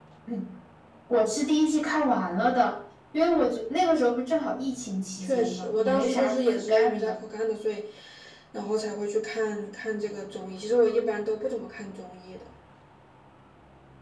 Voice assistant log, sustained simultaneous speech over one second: present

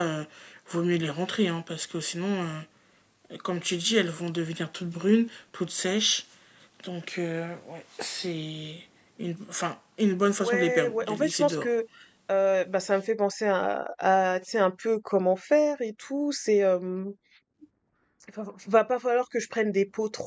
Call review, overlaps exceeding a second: present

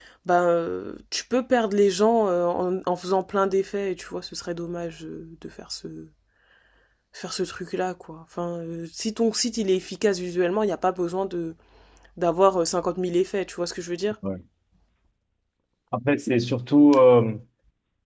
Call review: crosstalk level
none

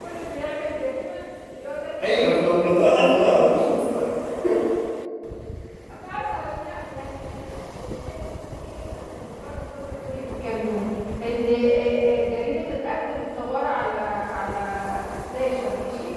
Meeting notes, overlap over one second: present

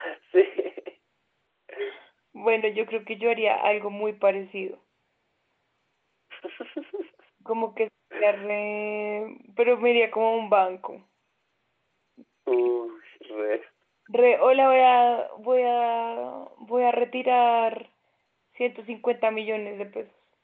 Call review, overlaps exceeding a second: none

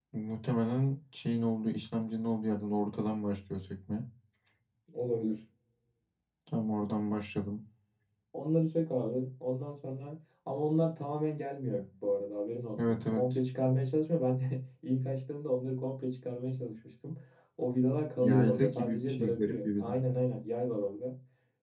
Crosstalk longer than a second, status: present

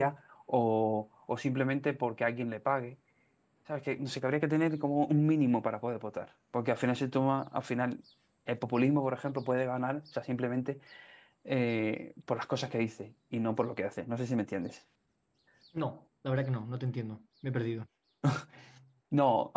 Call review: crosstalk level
none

